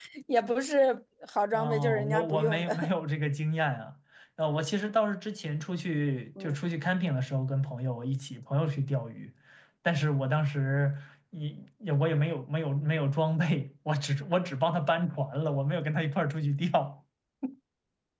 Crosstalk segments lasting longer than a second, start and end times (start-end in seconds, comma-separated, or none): 1.5-2.9